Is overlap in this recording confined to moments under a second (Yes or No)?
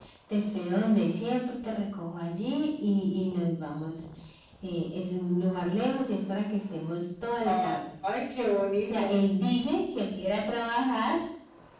Yes